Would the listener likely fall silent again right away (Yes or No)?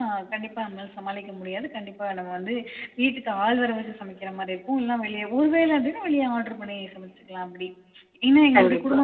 Yes